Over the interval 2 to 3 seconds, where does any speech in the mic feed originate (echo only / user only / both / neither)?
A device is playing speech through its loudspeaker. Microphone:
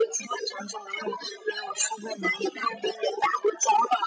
echo only